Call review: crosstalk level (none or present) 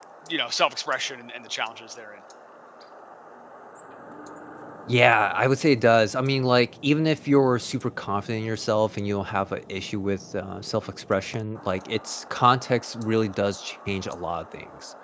none